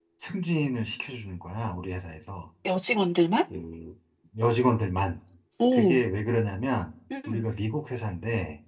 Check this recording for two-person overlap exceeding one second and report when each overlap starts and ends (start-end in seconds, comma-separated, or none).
none